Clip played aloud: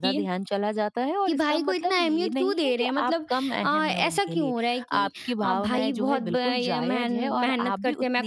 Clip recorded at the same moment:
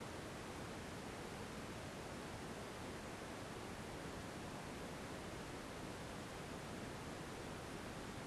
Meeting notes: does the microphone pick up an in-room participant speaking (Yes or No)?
No